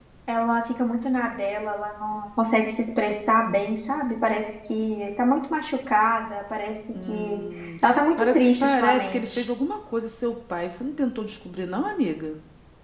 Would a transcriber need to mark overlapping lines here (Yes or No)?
Yes